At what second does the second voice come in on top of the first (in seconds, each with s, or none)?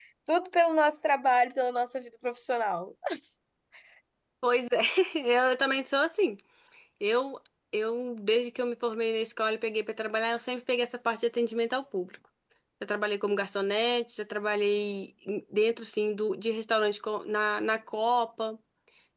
none